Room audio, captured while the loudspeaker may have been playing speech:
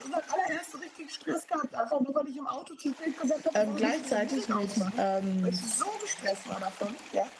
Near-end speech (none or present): present